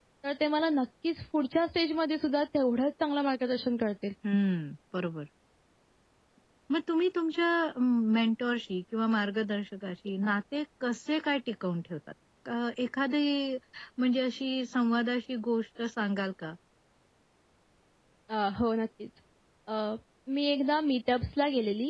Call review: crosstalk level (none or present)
none